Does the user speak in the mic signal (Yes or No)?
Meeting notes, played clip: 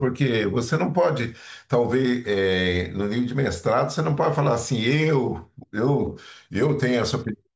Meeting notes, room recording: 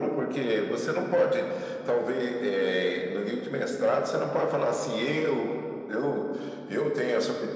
No